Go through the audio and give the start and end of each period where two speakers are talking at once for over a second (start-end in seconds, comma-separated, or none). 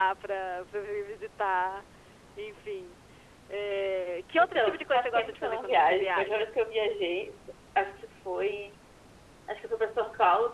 4.4-6.5